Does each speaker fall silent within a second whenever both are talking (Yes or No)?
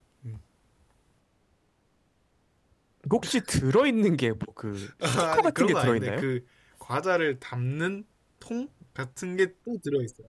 No